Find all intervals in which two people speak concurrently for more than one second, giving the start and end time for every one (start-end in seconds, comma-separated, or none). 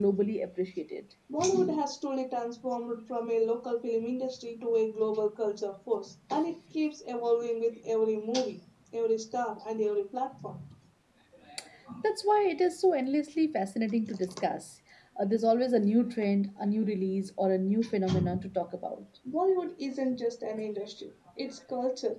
none